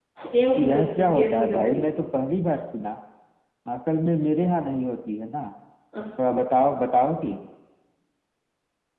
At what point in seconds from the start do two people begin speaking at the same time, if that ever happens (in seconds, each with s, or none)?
0.6 s